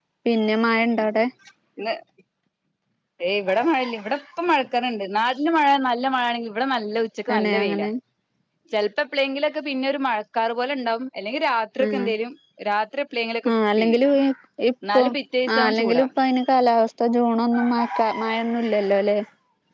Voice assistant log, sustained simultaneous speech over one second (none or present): none